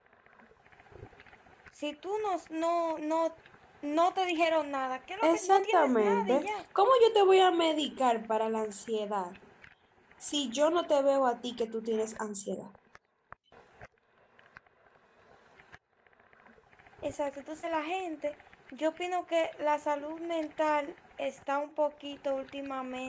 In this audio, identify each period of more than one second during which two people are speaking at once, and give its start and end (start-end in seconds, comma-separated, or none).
5.2-6.5